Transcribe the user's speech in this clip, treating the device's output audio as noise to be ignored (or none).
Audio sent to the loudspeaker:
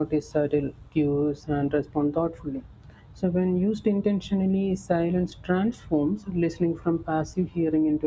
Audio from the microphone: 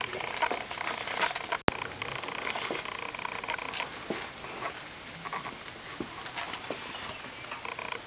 none